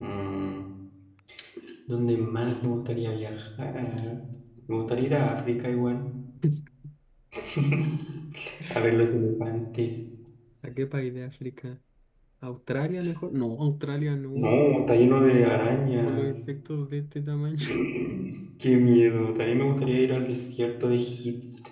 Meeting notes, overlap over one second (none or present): none